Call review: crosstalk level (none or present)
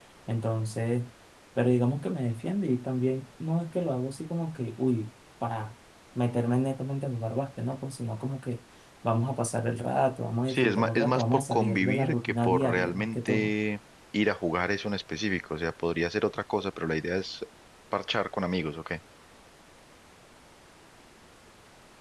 present